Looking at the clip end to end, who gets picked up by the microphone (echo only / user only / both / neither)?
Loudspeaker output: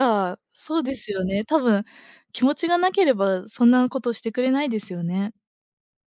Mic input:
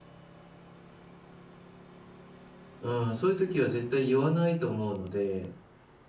user only